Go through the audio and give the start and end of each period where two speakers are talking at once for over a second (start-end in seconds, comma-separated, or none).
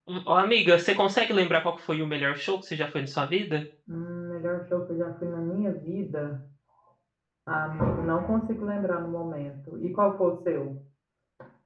none